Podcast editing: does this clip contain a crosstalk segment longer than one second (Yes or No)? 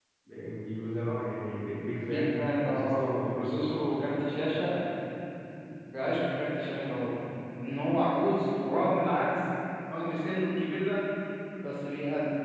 Yes